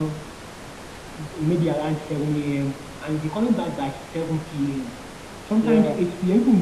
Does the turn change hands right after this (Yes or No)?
No